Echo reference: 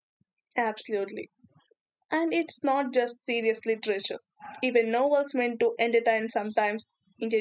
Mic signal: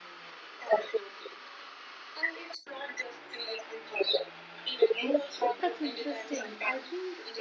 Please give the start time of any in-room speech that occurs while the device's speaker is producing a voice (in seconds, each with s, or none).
5.4 s